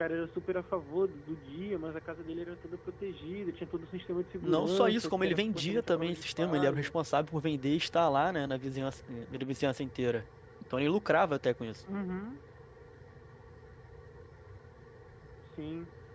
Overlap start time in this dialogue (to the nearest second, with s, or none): 4 s